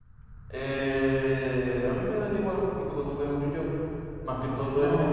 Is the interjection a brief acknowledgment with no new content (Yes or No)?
No